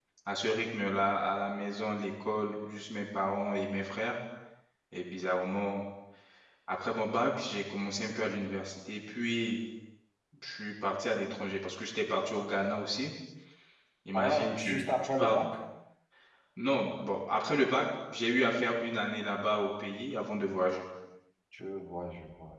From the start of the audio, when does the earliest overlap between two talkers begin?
14.1 s

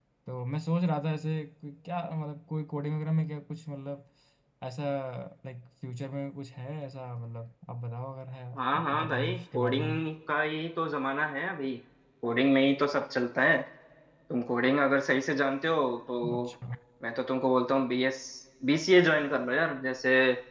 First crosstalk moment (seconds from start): 8.6 s

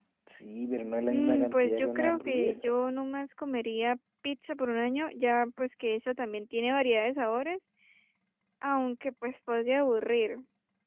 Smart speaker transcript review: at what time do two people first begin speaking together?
1.1 s

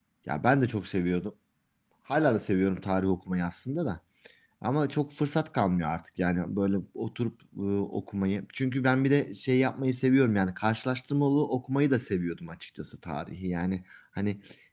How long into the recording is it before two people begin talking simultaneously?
none

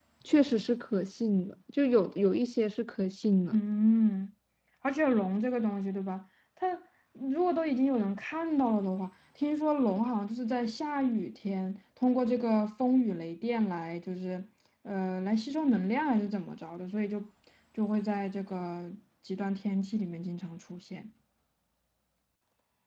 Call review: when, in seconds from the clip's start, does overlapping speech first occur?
none

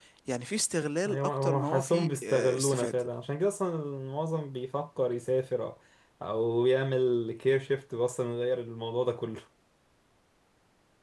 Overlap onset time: 1.1 s

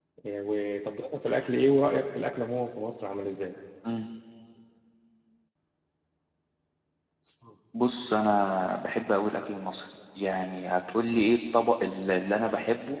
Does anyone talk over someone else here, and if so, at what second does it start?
none

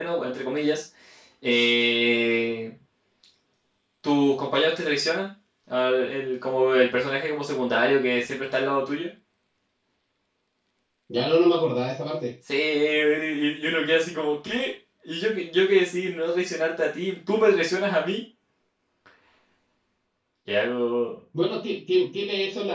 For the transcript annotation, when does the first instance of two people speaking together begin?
none

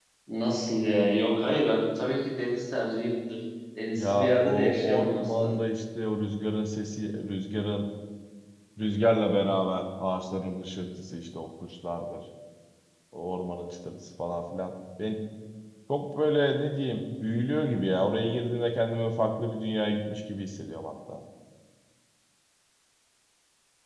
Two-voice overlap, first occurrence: 4.0 s

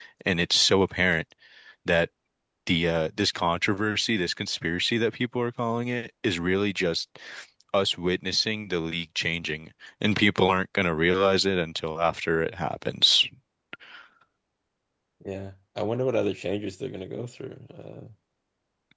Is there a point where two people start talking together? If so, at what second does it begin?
none

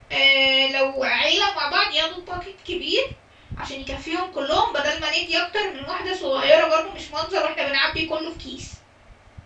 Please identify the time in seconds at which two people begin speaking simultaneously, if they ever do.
none

